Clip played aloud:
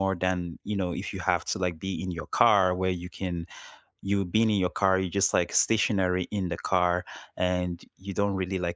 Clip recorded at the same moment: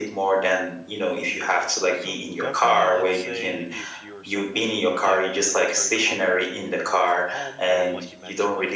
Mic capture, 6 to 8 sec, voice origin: both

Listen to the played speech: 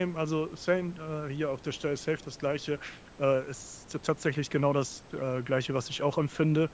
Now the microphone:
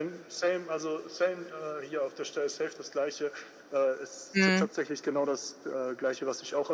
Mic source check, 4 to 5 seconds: both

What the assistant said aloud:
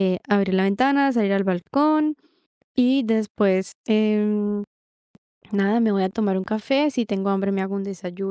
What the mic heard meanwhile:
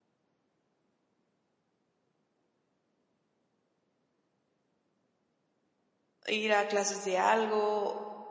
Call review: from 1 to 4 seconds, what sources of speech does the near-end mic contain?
neither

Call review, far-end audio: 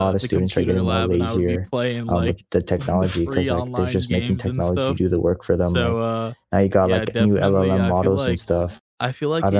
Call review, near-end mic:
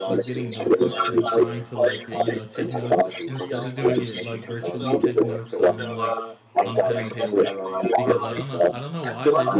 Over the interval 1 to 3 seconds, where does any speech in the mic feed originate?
both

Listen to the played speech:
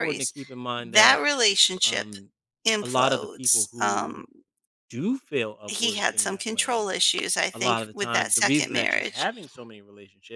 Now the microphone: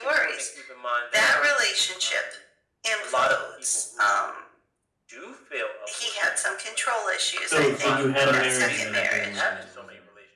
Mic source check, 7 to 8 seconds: both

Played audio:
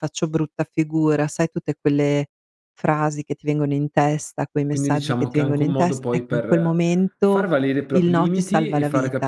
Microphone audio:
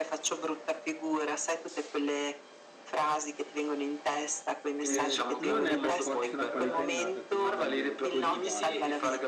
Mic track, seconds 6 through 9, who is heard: both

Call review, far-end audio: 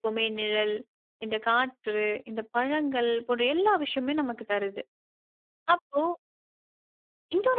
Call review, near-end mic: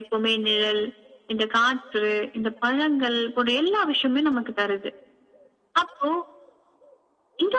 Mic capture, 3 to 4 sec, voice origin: echo only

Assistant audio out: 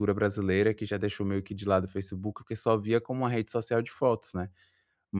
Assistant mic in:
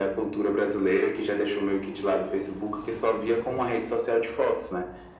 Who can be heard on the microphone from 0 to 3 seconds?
echo only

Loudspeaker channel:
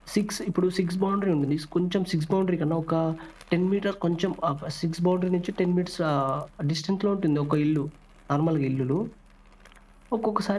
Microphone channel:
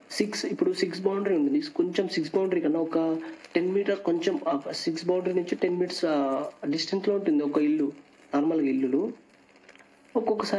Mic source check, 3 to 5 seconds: echo only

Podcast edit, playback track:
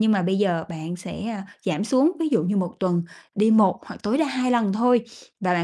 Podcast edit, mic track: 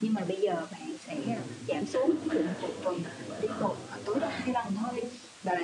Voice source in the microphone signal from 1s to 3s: both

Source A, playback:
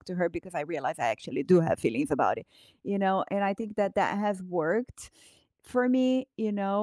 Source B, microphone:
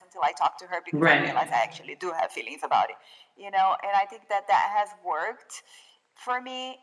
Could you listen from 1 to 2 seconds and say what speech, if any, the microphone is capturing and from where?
both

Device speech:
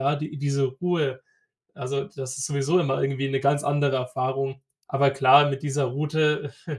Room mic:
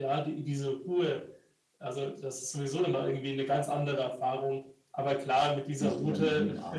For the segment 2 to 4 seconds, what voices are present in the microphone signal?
echo only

